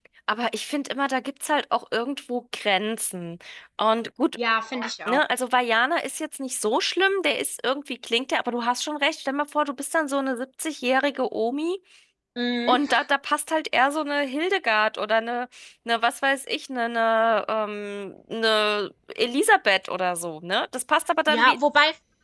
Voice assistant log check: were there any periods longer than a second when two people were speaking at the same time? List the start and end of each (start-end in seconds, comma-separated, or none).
none